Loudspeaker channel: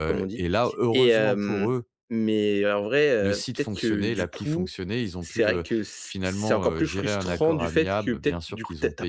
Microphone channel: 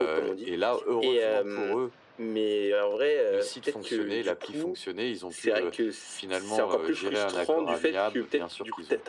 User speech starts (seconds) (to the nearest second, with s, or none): none